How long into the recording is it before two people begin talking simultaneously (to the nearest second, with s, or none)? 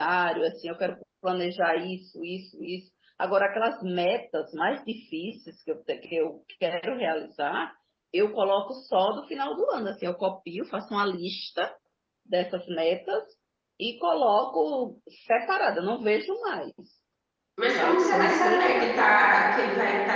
18 s